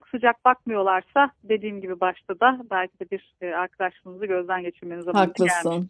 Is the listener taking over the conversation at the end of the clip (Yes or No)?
Yes